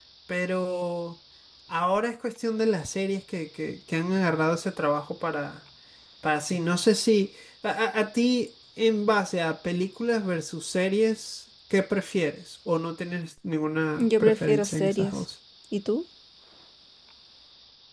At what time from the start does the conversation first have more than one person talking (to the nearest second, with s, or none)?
14 s